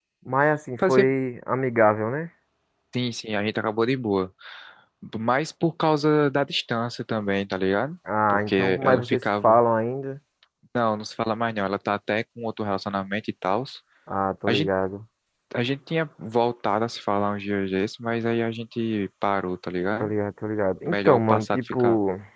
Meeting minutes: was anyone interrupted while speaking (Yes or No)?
Yes